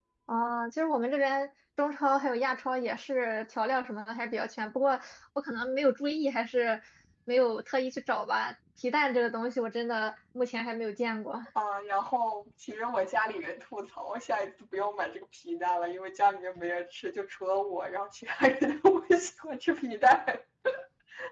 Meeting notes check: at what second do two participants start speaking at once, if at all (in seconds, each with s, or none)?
none